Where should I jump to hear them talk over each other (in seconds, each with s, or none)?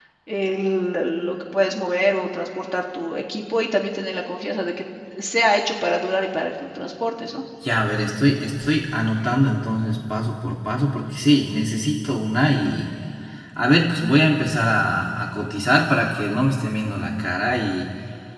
none